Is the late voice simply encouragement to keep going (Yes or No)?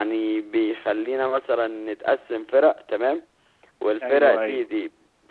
Yes